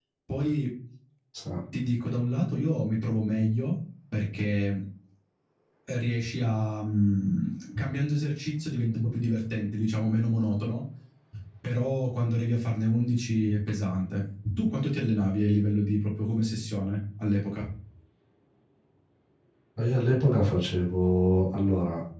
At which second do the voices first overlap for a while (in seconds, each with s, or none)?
none